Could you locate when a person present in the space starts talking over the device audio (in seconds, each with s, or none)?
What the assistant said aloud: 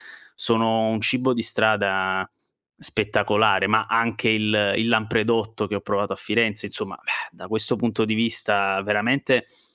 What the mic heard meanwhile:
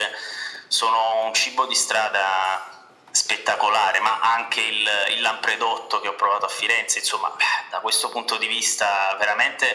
none